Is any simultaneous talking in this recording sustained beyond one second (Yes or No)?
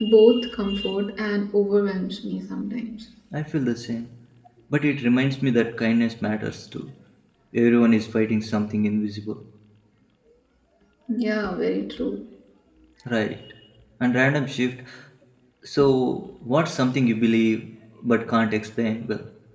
No